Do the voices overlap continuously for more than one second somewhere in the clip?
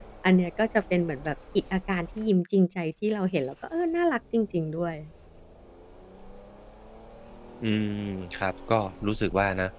No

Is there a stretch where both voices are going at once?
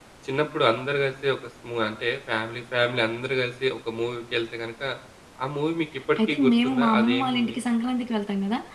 Yes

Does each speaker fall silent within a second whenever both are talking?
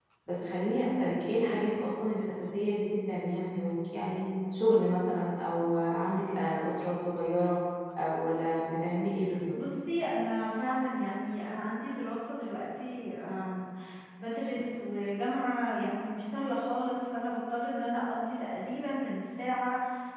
Yes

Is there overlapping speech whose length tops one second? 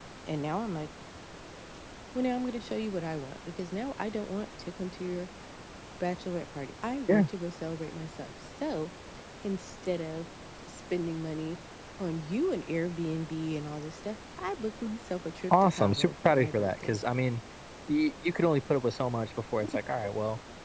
Yes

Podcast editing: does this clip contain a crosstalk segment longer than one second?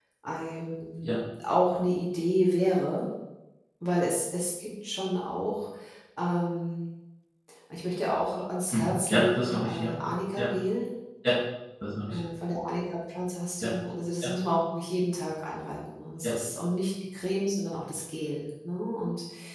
Yes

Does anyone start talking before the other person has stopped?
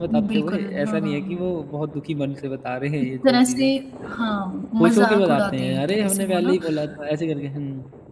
Yes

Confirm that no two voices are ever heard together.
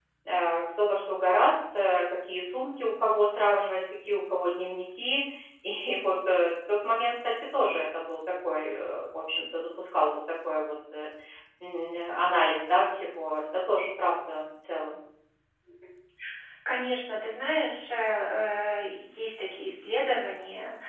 Yes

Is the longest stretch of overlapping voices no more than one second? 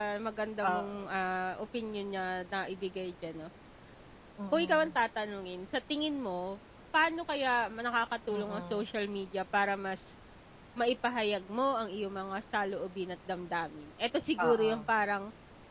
Yes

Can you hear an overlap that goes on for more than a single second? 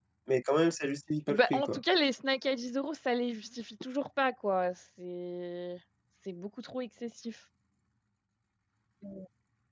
No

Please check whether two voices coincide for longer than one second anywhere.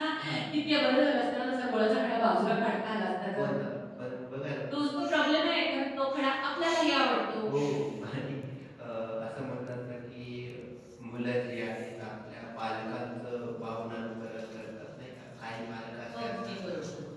No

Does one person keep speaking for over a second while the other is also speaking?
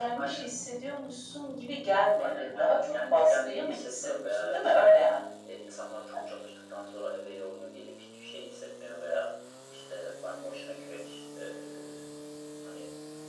Yes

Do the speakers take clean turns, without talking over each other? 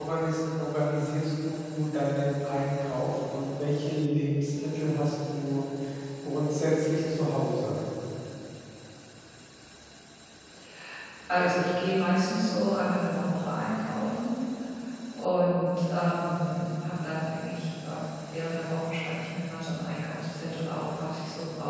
Yes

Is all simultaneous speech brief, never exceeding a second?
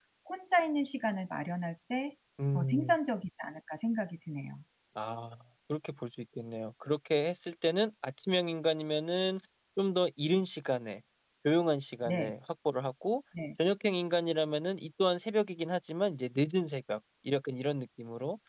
Yes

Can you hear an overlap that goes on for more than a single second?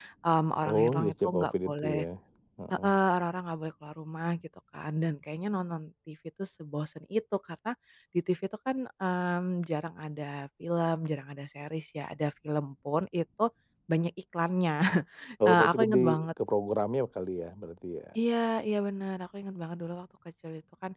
Yes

